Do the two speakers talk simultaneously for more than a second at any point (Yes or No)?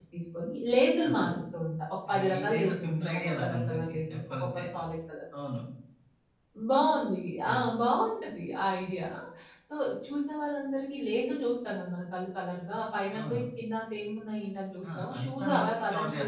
Yes